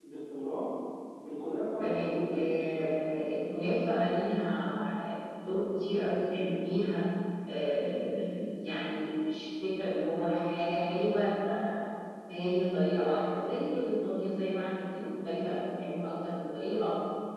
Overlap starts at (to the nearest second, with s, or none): 2 s